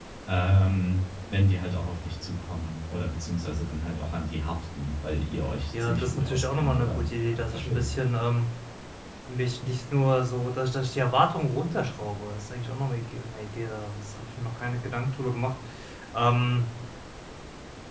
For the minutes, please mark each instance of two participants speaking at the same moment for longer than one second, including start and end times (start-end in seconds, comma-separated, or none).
5.7-7.9